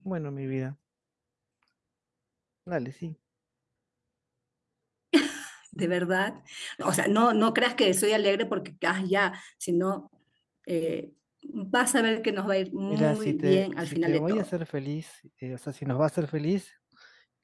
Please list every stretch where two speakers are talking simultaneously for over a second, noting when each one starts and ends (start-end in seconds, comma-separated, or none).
12.9-14.5